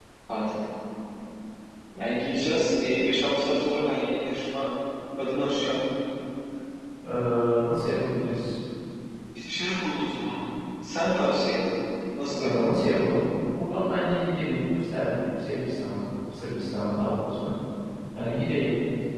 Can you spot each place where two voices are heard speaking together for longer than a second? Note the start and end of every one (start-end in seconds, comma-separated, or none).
none